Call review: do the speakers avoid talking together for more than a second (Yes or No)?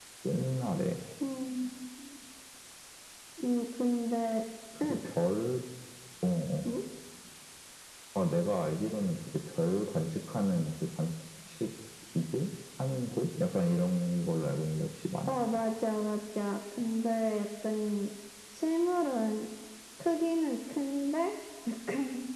Yes